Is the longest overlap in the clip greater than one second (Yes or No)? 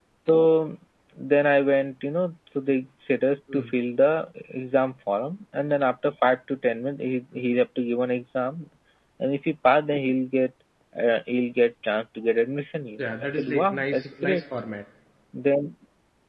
Yes